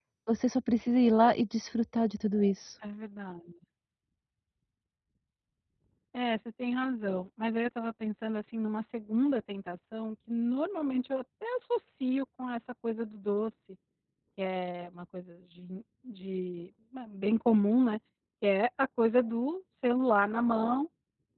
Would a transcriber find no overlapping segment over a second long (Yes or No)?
Yes